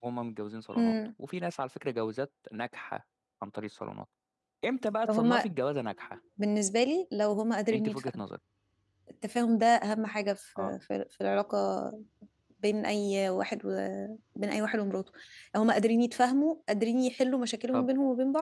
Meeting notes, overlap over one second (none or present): none